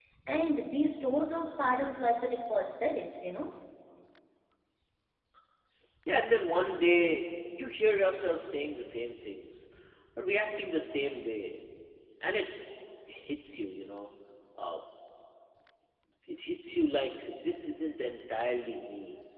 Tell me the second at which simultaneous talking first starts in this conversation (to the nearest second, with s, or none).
none